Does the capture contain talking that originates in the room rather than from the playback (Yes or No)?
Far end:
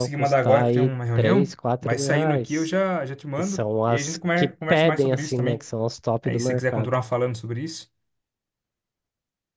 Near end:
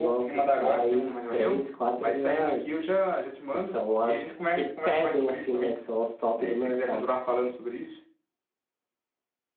No